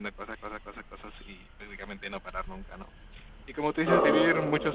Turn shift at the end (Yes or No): No